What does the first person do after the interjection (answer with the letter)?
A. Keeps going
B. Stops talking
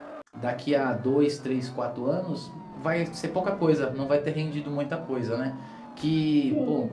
A